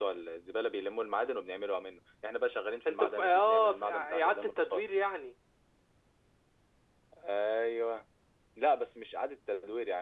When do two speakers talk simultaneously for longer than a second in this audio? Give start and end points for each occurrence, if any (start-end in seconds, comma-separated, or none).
2.9-4.8